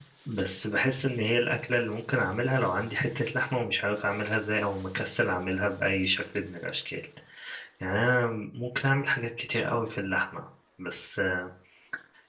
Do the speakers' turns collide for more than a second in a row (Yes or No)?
No